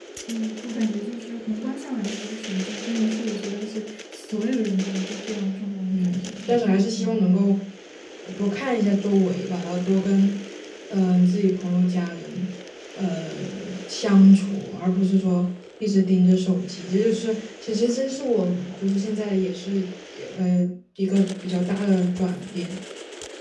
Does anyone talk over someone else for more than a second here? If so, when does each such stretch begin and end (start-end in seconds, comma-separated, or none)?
5.9-7.2